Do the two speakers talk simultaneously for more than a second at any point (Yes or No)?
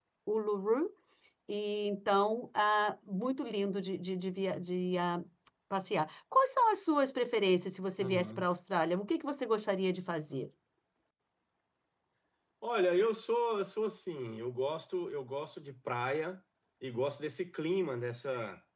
No